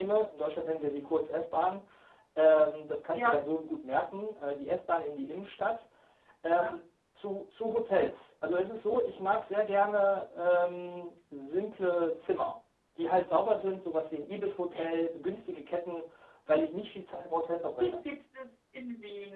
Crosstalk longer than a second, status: none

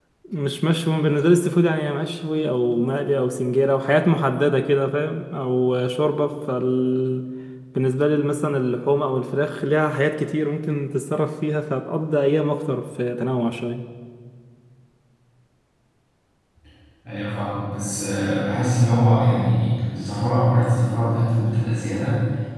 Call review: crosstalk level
none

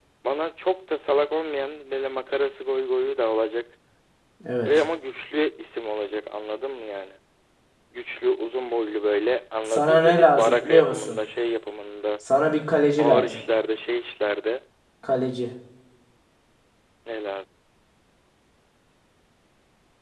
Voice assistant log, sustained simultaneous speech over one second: present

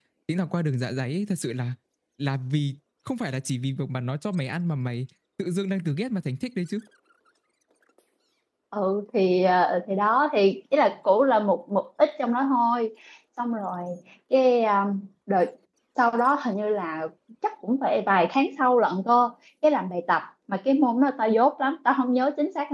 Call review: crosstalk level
none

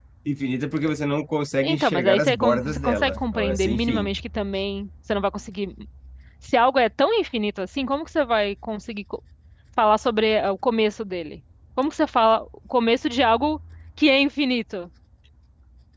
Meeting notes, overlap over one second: present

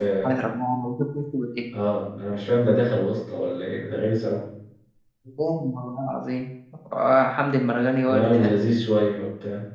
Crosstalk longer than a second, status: none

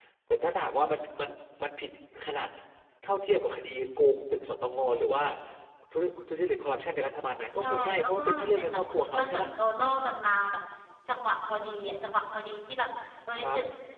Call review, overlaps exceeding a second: present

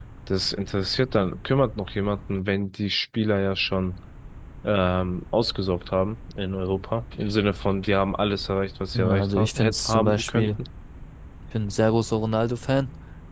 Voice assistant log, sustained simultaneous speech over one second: present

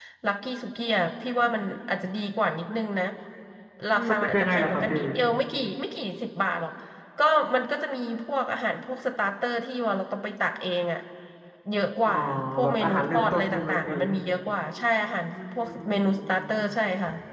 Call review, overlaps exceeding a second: present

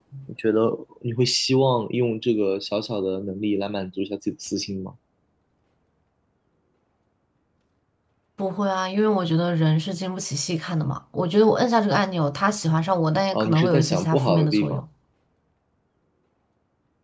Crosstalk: present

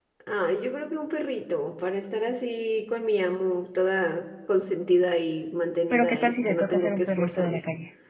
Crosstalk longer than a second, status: present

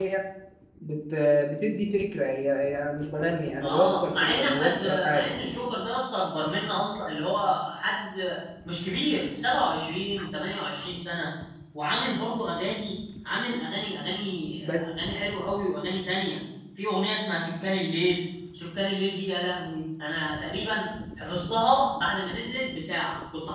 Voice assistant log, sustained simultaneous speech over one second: present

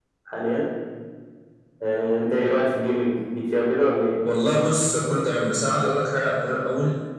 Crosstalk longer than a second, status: none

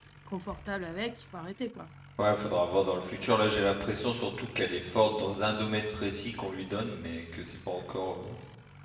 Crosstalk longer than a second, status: none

